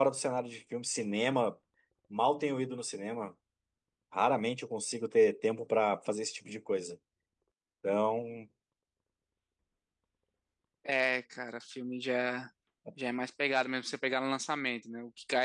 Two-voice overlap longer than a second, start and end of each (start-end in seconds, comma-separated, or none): none